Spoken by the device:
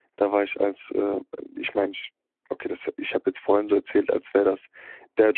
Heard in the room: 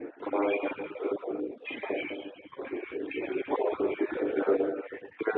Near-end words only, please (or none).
none